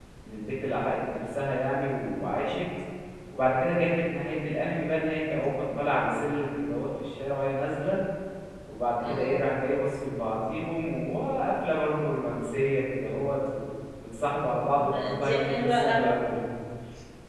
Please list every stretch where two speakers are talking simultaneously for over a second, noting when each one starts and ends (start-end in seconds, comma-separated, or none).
14.7-16.2